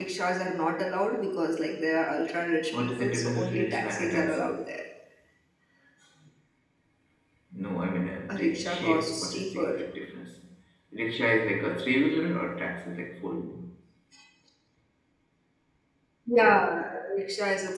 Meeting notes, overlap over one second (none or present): present